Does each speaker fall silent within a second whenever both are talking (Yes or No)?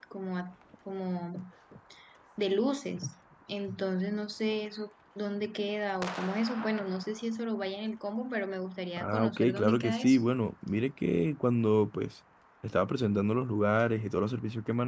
No